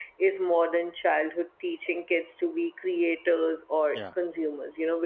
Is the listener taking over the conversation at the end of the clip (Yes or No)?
No